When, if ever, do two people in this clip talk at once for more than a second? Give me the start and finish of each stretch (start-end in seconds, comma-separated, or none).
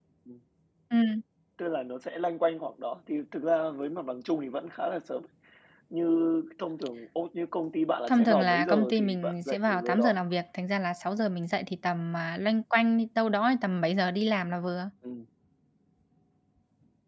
8.1-10.1